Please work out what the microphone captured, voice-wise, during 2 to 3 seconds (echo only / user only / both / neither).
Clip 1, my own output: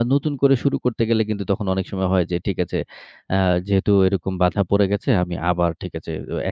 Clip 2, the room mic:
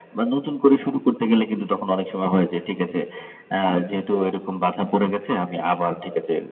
echo only